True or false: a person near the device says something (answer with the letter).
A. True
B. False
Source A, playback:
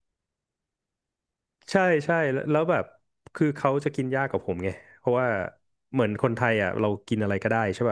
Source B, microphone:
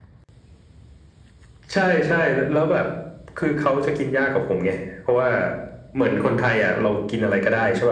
B